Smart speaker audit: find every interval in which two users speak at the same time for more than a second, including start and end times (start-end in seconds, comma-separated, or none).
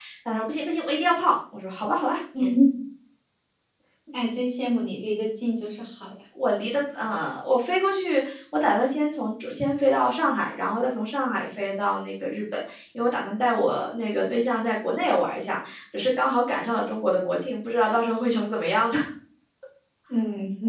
none